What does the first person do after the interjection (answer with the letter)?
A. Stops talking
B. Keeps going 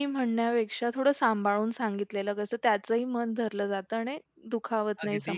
A